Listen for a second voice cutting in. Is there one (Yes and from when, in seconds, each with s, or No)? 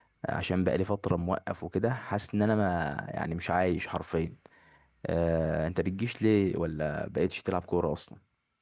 No